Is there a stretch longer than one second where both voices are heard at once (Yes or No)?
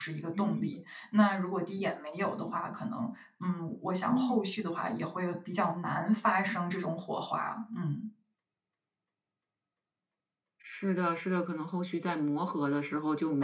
No